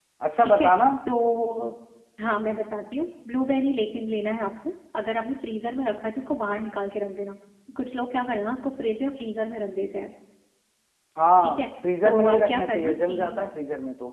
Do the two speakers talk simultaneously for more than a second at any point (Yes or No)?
Yes